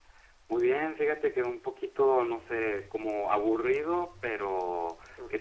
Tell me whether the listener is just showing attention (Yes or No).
Yes